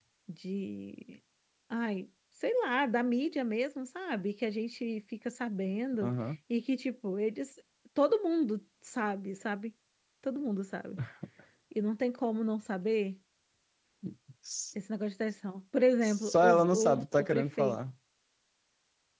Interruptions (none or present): present